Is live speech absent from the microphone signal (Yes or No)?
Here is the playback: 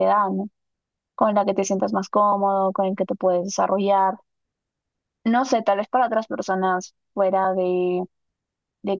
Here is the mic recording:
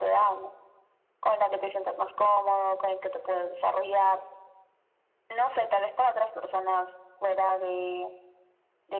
Yes